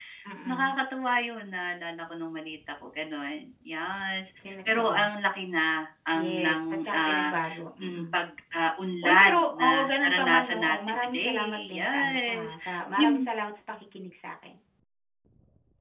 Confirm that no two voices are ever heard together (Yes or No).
No